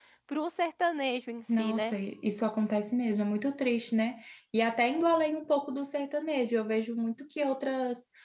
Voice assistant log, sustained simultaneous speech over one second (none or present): none